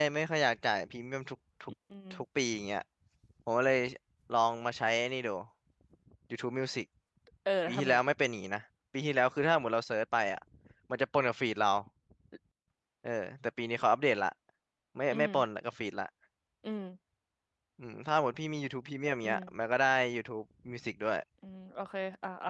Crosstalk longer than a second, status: none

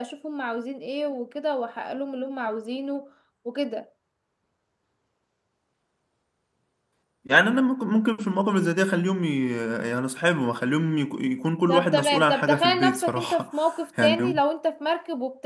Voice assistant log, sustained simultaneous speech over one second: present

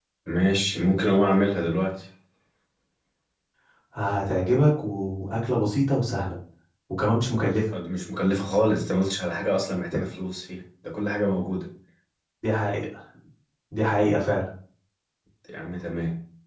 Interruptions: none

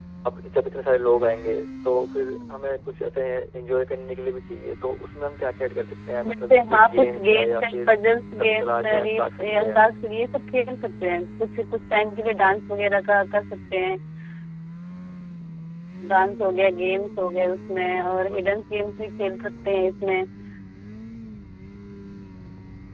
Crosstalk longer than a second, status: present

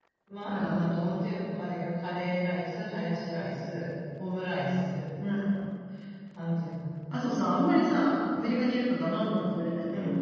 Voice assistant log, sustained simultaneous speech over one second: none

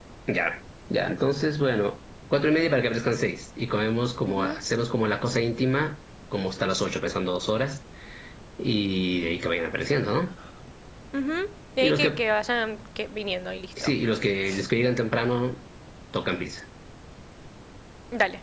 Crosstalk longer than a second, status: none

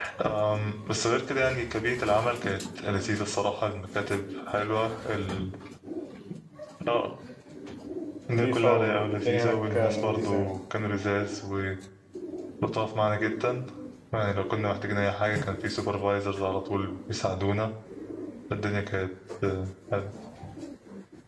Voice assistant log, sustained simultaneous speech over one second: present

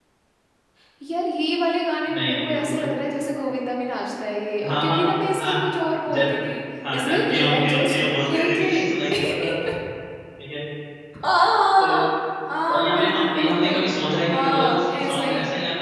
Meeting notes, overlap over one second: present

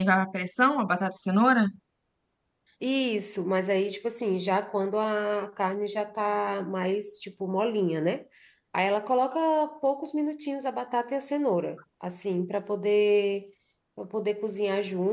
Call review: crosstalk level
none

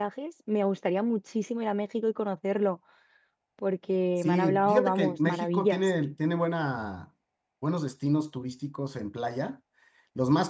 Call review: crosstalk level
present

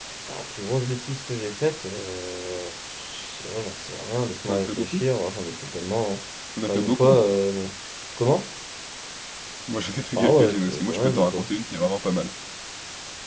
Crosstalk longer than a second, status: present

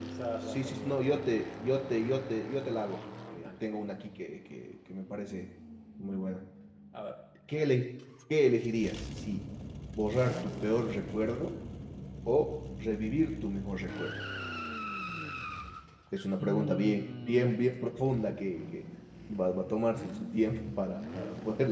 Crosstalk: present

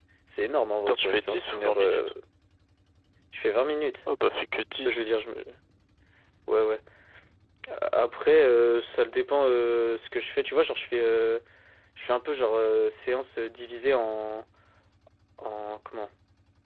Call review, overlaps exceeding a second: present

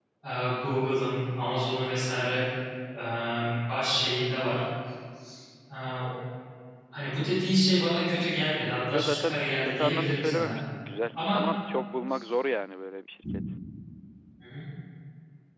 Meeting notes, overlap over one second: present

